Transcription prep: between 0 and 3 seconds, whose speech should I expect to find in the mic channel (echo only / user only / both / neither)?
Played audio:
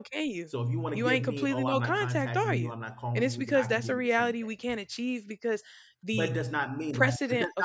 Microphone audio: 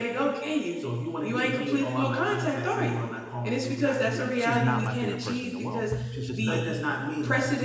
echo only